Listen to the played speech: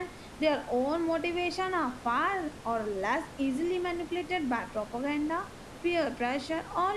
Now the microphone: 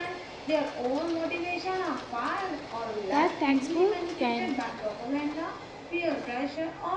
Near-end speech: present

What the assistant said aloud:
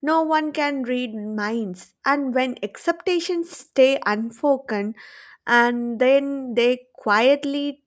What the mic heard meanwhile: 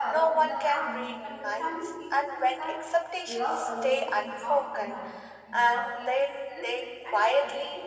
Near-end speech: present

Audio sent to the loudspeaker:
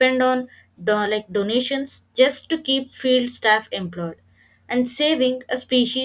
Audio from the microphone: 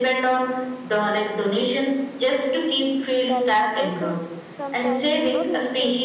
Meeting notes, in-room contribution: present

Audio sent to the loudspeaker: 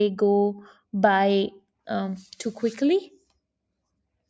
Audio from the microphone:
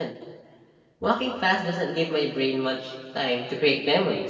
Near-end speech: present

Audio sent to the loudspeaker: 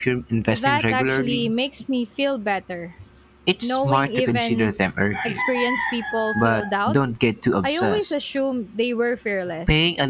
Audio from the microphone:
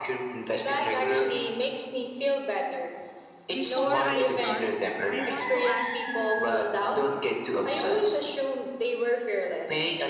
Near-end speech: present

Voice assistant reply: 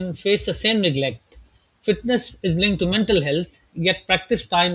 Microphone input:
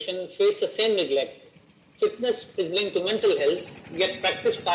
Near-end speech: none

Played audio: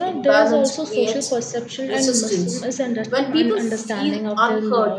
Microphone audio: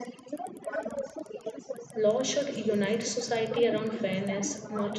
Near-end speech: present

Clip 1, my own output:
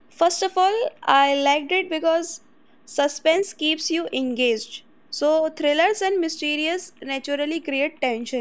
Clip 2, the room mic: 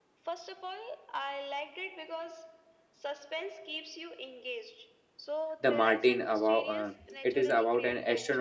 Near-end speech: present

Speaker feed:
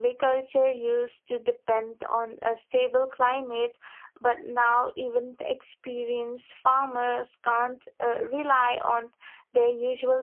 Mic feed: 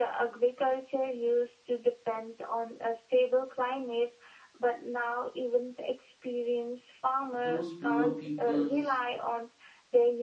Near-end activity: present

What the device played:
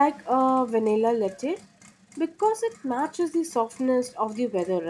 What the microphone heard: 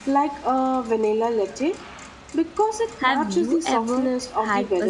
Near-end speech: present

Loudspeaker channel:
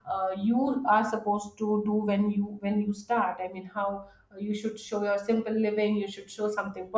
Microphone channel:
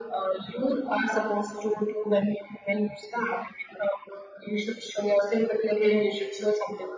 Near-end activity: none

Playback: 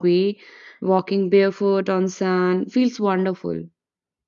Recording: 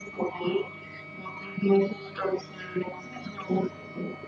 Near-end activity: none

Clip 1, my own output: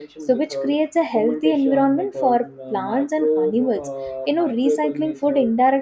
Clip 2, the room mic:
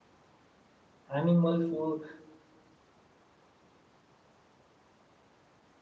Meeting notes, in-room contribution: present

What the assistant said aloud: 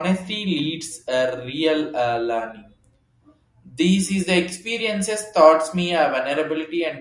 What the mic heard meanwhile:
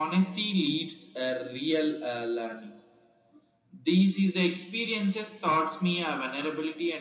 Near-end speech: none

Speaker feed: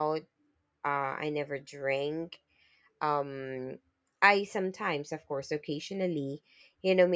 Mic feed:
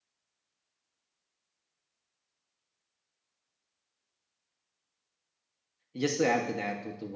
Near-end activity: present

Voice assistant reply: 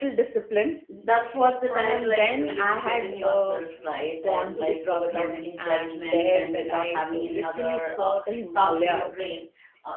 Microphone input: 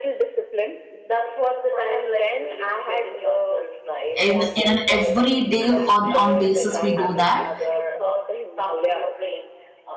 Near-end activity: present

